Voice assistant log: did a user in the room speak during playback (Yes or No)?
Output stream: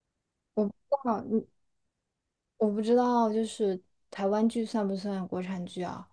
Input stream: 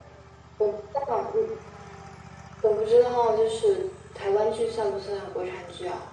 No